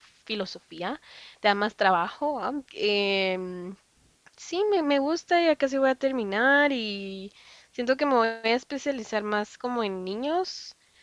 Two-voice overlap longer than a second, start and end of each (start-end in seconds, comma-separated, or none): none